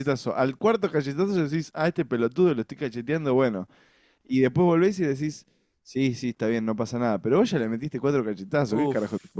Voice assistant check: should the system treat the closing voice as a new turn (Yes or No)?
Yes